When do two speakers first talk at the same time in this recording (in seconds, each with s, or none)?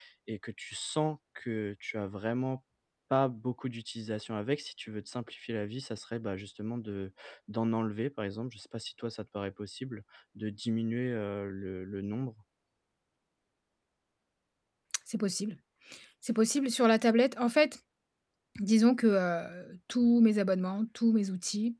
none